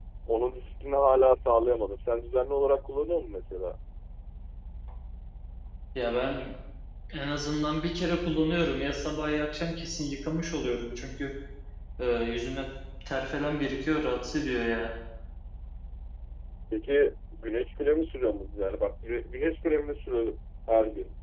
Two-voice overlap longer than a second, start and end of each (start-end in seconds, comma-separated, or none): none